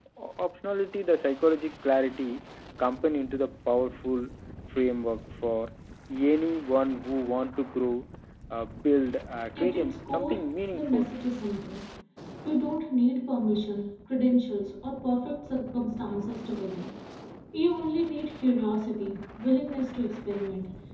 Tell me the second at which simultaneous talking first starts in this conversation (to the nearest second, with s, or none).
10 s